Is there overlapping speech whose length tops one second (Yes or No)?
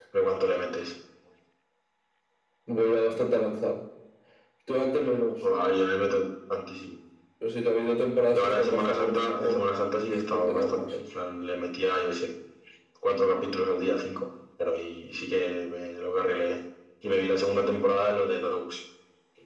Yes